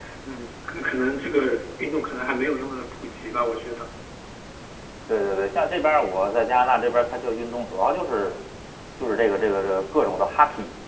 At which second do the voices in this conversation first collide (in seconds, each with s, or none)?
none